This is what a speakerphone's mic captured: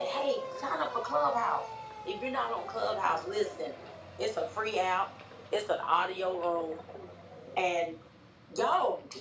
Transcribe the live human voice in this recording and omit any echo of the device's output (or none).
none